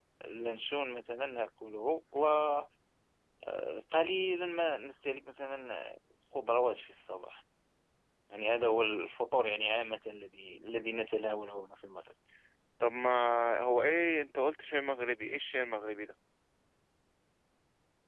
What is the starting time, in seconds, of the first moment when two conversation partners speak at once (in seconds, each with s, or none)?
none